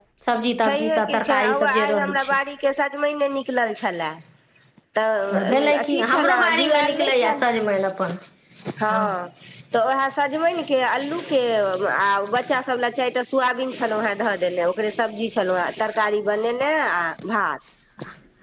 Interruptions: present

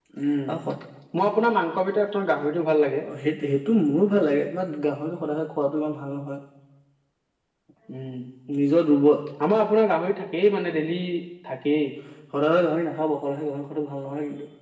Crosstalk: none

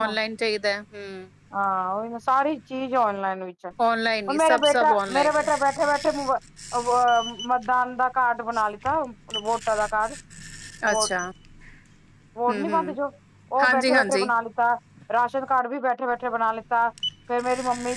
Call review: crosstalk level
present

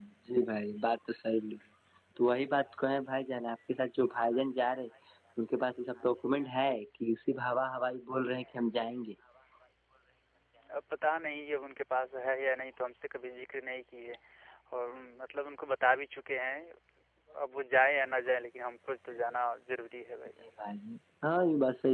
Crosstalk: none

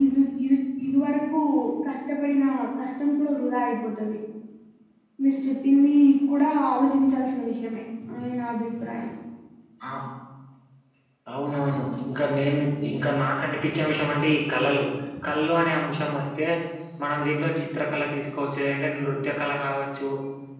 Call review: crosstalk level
none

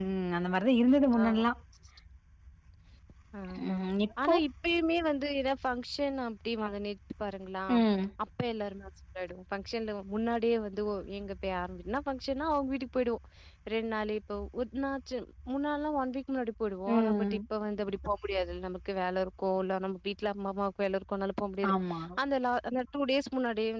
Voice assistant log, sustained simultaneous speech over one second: none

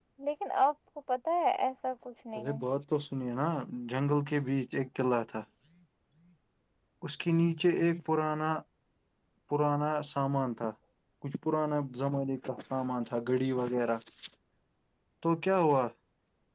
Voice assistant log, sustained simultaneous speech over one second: none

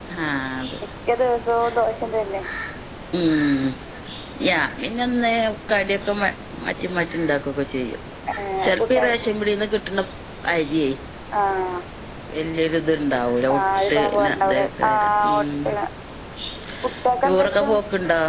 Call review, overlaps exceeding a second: present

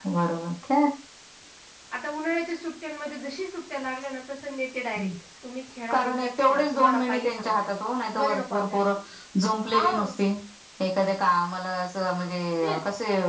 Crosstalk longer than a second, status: present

